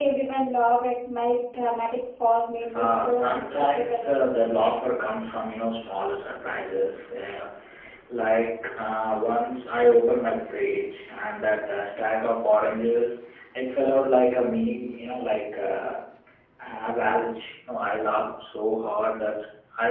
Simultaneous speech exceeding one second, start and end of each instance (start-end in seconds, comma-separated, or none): 2.8-4.2